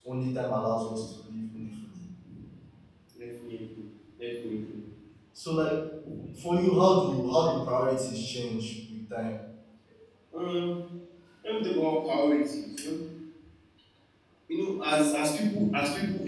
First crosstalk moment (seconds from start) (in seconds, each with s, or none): none